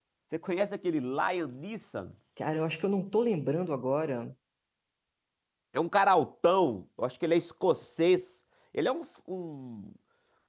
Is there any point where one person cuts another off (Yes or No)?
No